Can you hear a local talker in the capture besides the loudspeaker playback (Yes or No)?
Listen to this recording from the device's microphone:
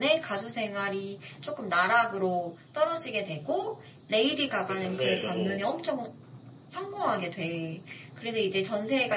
Yes